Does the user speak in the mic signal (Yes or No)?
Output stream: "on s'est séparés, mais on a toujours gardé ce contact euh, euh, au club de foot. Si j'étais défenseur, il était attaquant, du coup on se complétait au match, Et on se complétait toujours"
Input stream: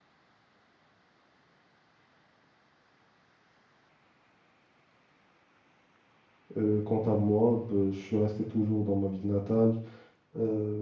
Yes